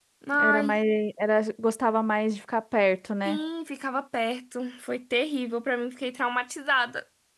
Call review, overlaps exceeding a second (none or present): none